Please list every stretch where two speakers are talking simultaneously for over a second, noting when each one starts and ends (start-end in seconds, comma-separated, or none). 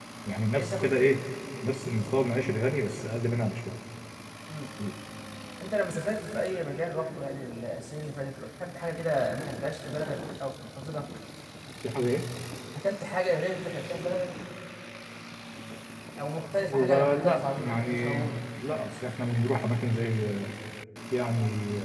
16.7-18.2